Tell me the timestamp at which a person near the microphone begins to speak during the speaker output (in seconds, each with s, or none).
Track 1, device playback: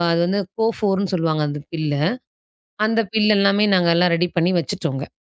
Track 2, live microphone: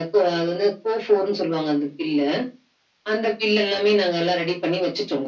none